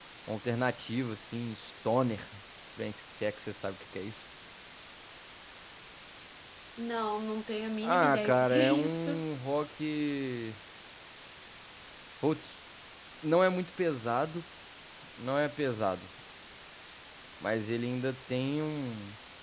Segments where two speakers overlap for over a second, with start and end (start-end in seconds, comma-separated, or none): 7.8-9.2